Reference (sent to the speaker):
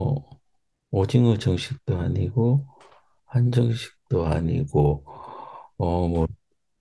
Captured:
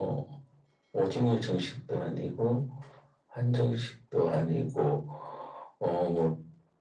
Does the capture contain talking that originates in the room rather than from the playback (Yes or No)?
No